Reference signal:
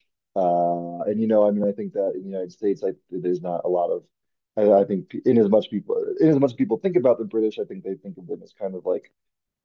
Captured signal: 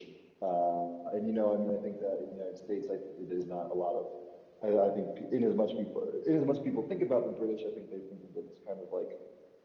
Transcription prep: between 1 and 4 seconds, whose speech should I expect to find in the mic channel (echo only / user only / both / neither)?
echo only